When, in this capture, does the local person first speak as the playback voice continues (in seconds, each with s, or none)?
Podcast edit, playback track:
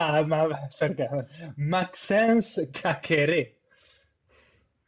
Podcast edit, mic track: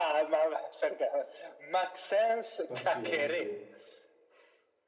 2.7 s